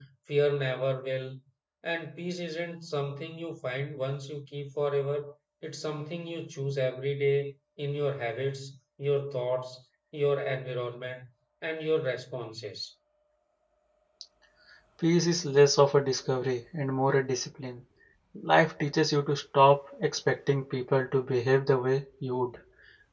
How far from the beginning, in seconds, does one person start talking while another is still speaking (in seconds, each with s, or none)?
none